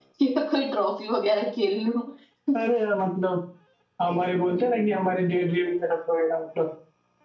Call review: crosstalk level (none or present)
none